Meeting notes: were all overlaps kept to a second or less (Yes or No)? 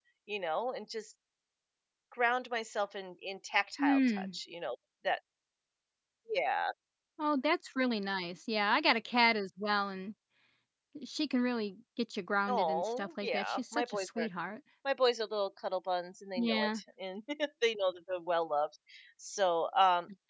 No